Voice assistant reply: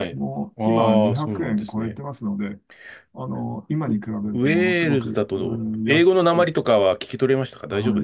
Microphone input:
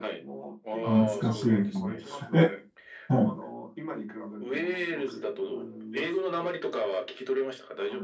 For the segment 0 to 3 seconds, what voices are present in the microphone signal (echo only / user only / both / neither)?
both